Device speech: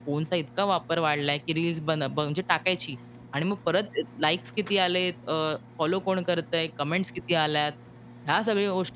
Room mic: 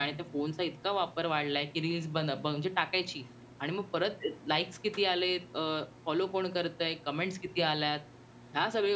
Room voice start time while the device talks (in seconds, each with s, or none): none